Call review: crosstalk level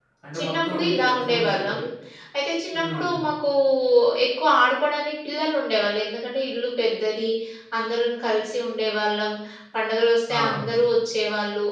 present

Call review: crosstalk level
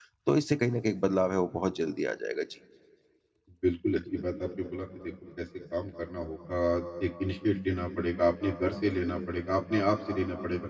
none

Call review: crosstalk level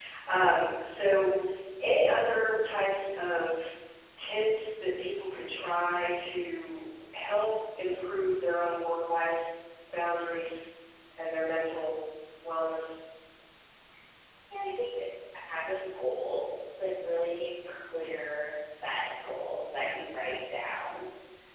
none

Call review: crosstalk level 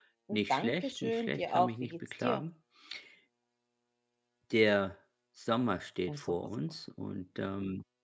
present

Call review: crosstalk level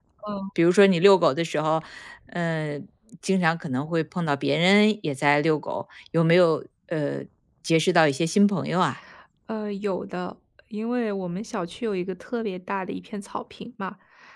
none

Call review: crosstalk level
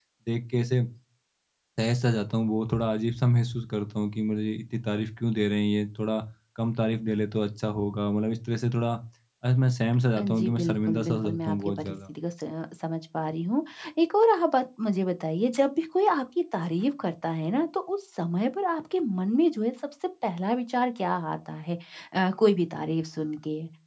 present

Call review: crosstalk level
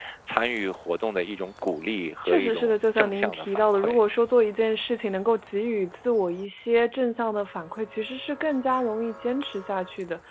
present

